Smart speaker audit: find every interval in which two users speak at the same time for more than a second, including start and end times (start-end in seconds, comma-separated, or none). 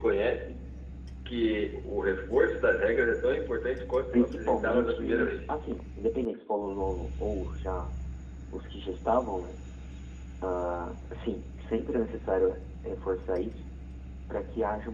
4.1-5.5